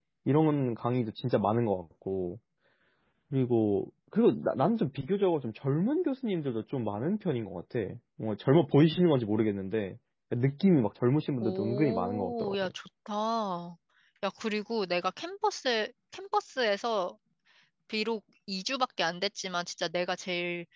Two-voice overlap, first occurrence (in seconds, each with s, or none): 11.4 s